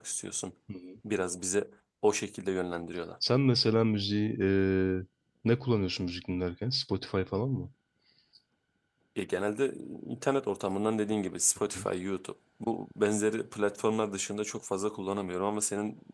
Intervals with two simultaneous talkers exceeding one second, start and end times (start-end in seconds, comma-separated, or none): none